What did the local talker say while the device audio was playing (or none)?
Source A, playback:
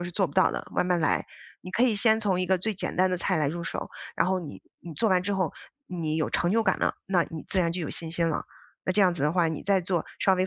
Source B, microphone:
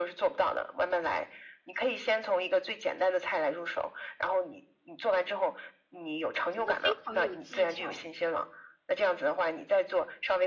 真的非常有技巧，